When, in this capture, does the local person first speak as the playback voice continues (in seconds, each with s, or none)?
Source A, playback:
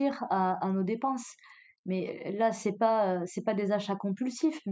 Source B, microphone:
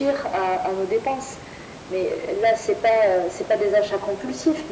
none